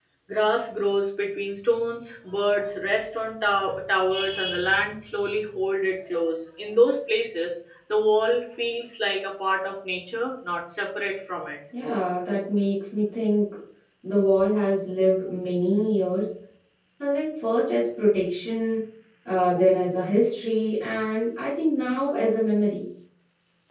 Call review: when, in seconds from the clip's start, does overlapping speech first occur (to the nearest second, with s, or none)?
none